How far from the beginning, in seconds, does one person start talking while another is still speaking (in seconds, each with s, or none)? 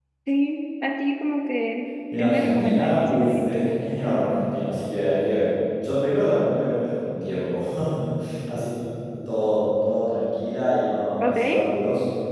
2.2 s